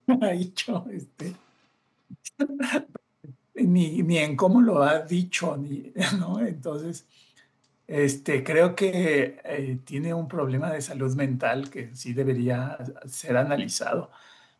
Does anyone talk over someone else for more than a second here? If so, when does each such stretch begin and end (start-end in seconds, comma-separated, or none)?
none